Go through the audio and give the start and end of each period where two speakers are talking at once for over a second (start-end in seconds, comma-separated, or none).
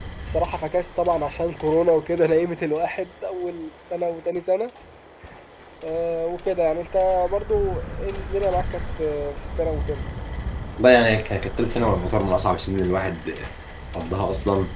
none